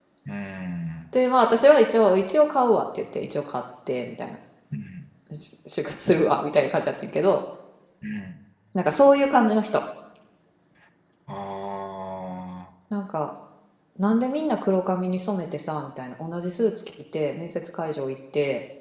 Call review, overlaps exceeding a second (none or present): none